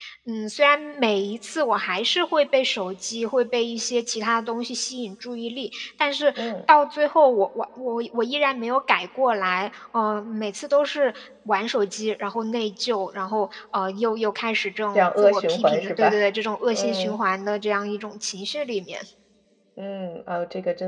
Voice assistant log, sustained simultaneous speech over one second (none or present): present